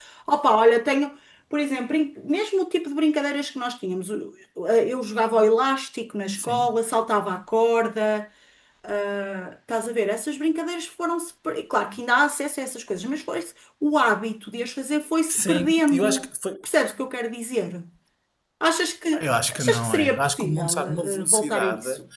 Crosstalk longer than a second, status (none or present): present